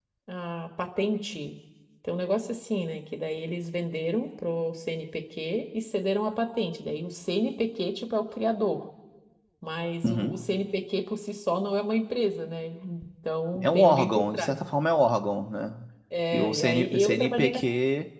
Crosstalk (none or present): present